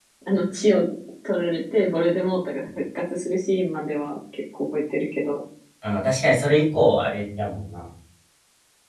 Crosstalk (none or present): none